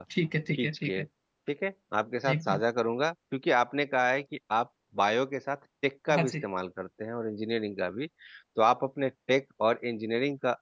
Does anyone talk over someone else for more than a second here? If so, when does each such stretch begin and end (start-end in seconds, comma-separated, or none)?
none